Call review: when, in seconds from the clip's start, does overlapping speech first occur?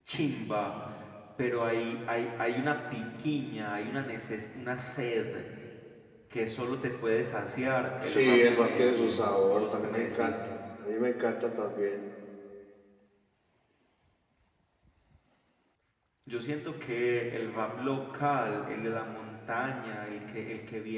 8.0 s

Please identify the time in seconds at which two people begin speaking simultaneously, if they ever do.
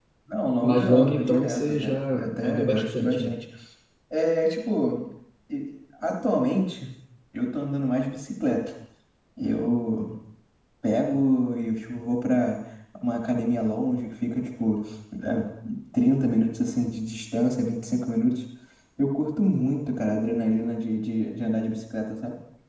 0.6 s

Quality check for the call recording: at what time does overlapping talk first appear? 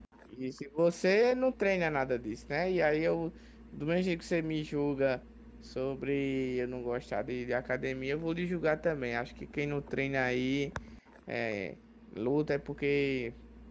none

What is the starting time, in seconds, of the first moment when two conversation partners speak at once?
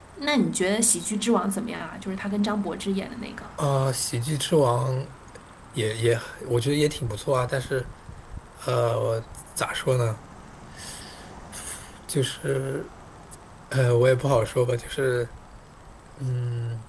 none

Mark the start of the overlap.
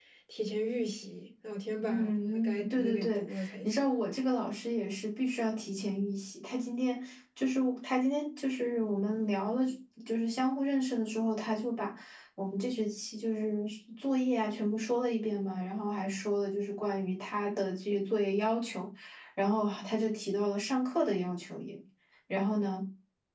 1.9 s

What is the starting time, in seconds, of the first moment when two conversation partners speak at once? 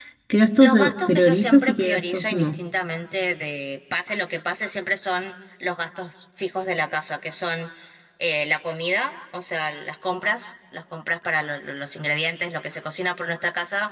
0.6 s

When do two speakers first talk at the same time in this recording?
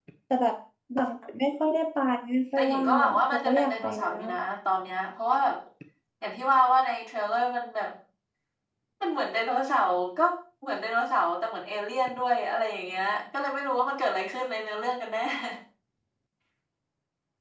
2.6 s

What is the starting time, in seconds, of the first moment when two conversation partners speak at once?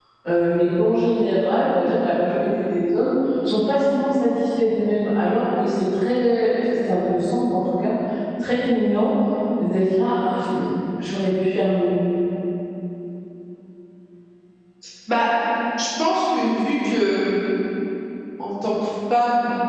none

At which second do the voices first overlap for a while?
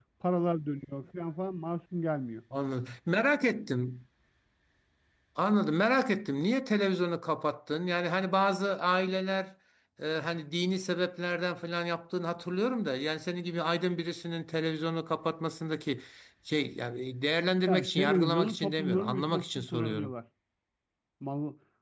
17.6 s

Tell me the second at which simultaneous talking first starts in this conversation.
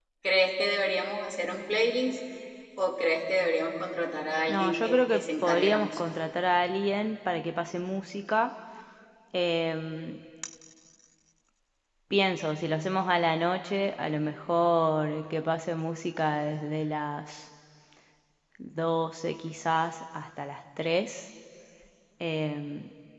4.5 s

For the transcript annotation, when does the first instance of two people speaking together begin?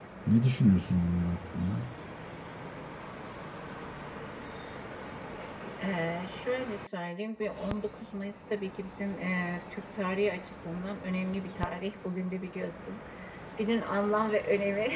none

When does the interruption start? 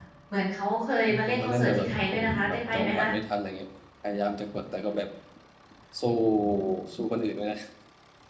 1.2 s

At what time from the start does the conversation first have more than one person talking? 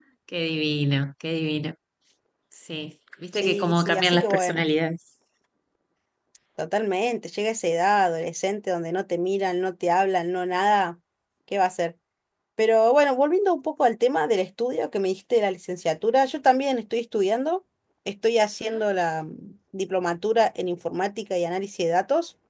3.3 s

